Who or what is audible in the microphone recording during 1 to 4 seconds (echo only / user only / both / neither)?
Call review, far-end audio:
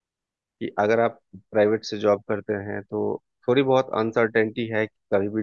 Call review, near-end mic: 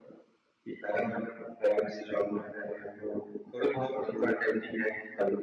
echo only